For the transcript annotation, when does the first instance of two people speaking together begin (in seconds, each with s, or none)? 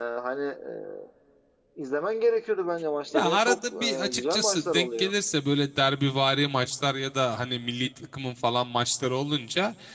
3.1 s